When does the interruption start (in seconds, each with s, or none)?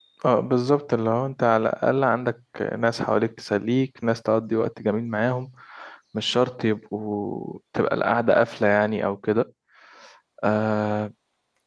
none